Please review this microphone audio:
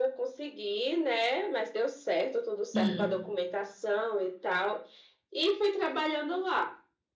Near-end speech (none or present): present